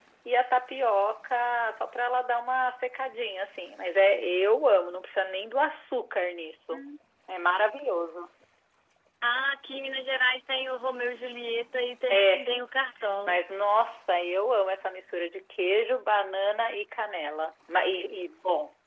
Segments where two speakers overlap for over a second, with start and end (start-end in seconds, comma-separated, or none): none